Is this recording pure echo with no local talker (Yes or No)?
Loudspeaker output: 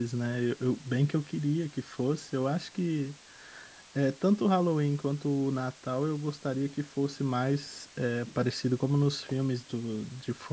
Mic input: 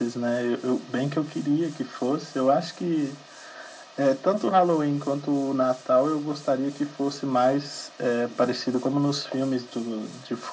Yes